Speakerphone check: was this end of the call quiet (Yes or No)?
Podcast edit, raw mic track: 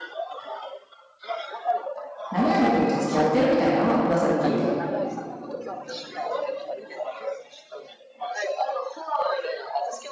No